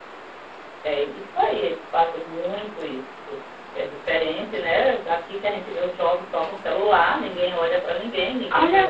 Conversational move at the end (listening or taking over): taking over